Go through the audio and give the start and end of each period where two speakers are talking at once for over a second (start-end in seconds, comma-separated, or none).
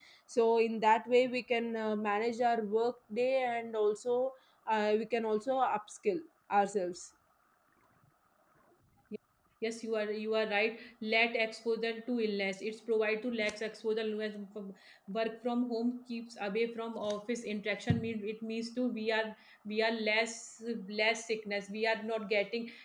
none